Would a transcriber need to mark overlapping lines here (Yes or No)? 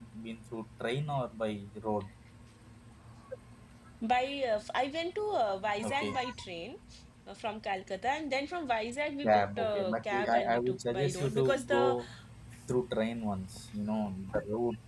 Yes